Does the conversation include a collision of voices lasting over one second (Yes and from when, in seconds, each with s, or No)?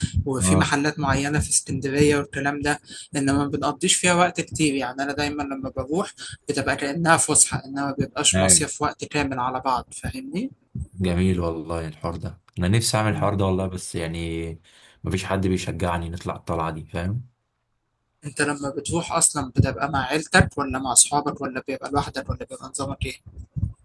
No